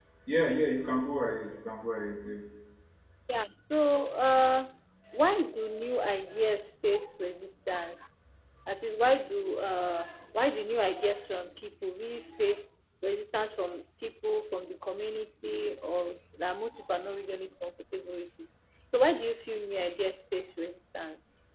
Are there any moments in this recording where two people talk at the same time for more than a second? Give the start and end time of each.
none

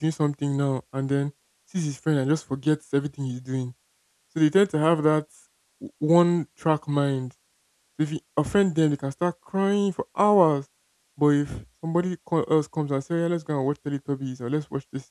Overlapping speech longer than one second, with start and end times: none

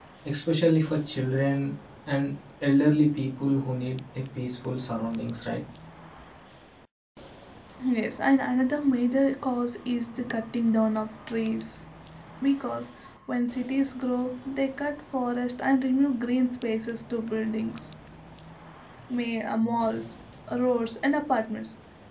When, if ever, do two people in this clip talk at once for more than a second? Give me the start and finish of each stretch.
none

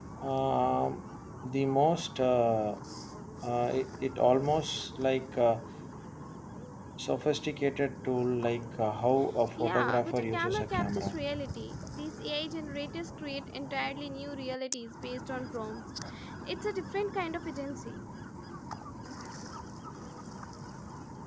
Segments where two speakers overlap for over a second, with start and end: 9.6-11.2

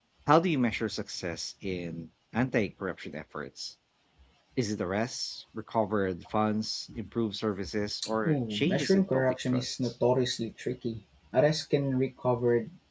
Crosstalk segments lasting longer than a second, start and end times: 8.3-9.9

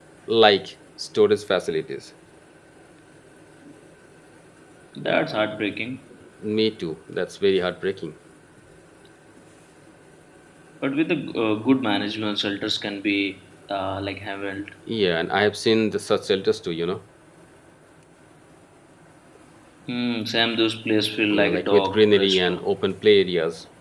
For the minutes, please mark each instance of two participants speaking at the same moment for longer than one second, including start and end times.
21.3-22.6

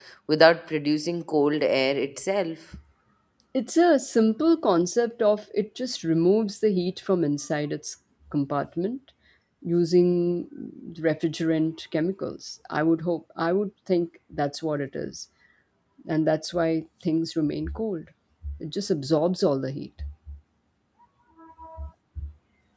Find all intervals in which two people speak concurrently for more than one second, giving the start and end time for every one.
none

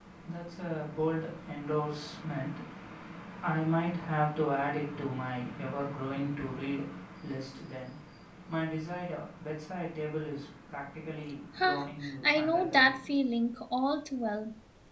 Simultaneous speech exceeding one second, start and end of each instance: 11.6-13.0

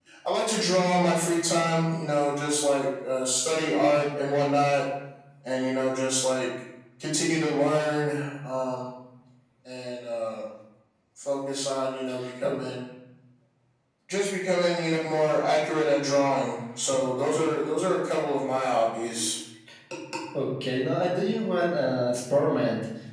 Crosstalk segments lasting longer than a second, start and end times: none

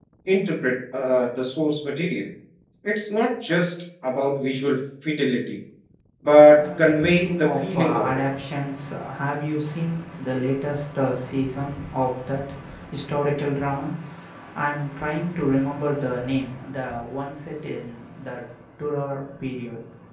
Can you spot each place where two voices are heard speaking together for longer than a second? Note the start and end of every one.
6.5-8.2

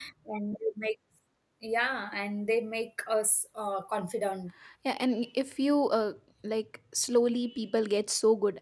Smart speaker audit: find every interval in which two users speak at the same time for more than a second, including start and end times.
none

